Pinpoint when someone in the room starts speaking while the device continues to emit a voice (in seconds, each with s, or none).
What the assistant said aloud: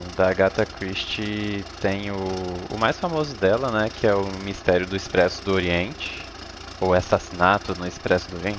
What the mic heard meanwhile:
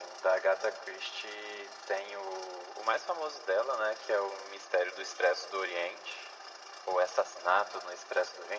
none